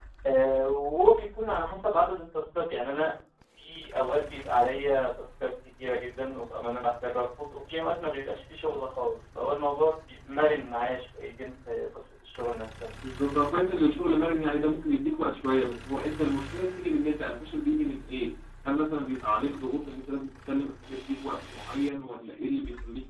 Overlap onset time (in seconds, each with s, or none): none